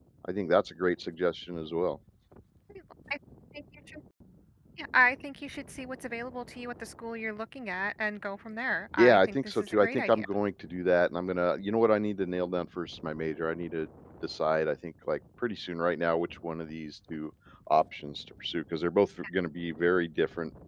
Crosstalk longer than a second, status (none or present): present